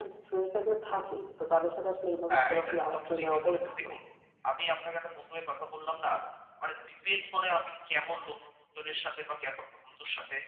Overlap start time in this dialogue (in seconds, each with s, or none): 2.3 s